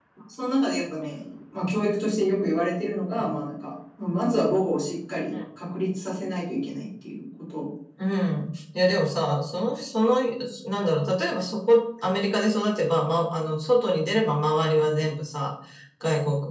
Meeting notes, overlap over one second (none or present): none